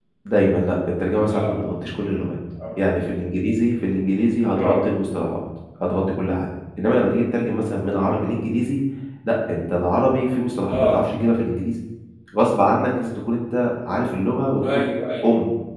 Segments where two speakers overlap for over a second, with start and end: none

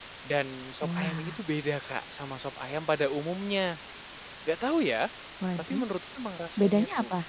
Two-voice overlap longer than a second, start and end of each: none

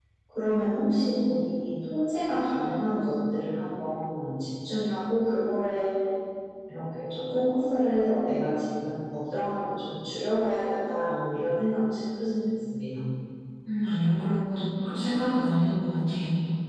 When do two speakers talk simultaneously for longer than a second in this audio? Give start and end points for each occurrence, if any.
none

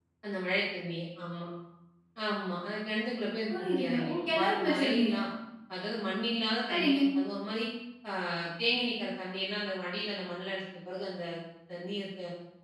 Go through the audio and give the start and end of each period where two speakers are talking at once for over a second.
3.5-5.1

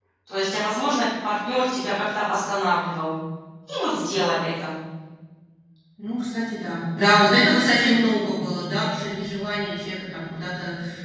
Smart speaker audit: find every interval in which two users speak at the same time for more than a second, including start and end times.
none

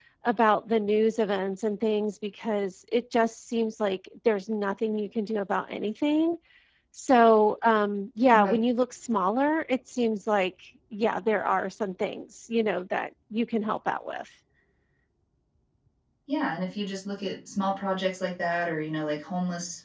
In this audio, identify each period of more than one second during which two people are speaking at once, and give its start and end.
none

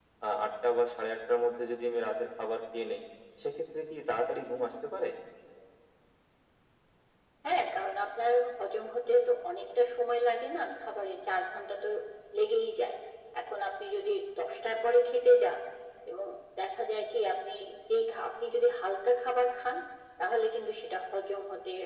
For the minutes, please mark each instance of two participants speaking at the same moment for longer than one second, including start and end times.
none

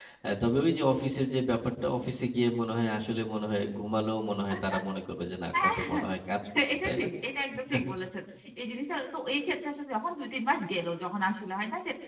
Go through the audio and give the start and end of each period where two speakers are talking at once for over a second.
none

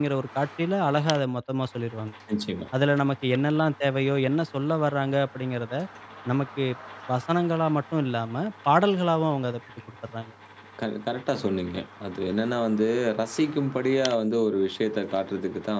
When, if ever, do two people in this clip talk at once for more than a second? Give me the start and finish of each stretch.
none

